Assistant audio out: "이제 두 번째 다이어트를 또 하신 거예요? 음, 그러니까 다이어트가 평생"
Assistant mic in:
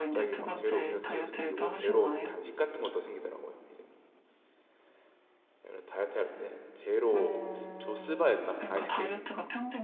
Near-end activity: present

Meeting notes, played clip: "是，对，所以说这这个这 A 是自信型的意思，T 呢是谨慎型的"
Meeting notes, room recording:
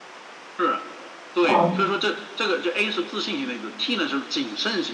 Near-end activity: present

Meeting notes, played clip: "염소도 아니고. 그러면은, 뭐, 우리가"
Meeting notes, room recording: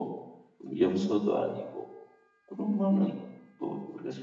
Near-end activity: none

